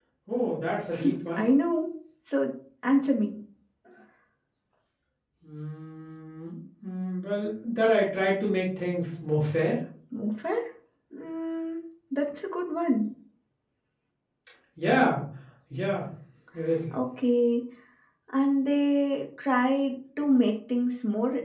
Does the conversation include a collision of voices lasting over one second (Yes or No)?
No